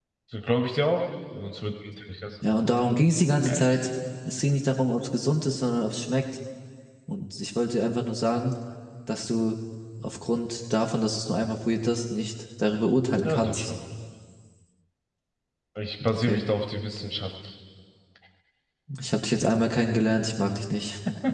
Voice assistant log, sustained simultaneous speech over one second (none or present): none